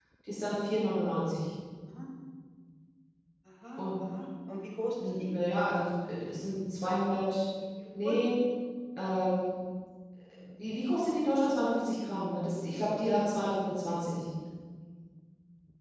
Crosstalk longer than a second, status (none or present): none